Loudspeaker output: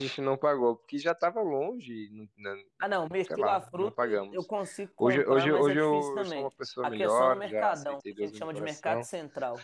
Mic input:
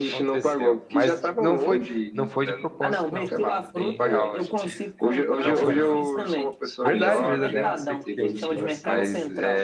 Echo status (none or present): present